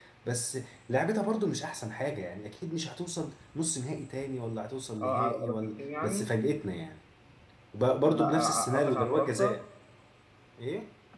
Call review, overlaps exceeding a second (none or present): present